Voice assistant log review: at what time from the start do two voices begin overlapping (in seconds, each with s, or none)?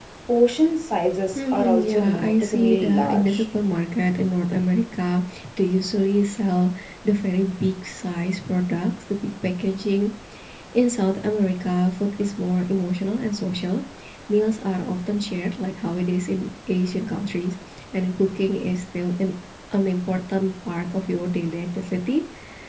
1.3 s